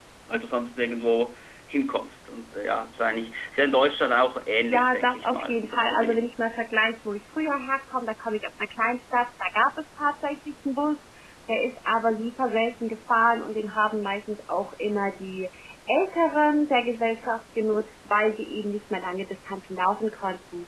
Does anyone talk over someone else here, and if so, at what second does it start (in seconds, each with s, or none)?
4.7 s